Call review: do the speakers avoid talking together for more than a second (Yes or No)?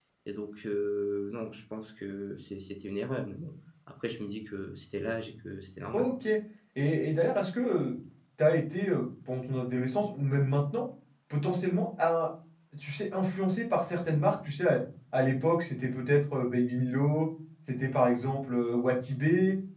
Yes